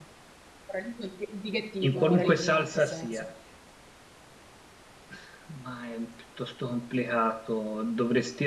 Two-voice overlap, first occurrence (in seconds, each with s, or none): 1.8 s